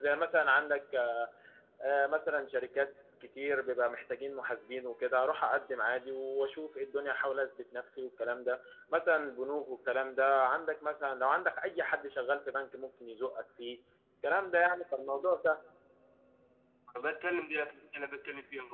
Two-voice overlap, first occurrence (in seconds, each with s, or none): none